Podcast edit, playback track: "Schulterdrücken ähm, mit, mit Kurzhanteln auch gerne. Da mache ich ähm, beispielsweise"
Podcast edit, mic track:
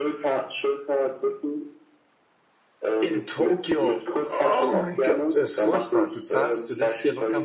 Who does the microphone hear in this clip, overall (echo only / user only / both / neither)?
both